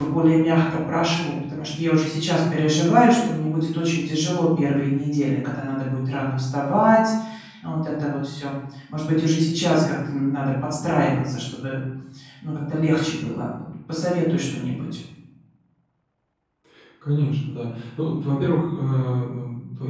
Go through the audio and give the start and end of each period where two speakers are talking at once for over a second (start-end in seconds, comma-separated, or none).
none